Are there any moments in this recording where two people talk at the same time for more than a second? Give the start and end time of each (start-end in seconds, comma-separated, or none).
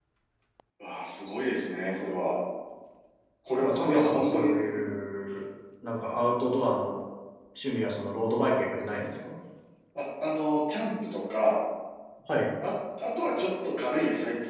3.5-4.8